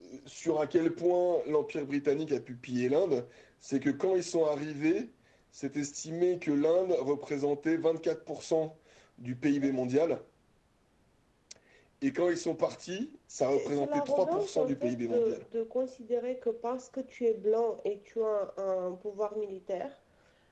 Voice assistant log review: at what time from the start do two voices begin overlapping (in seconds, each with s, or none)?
13.5 s